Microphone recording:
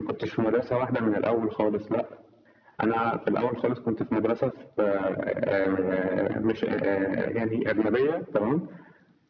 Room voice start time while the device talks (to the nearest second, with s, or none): none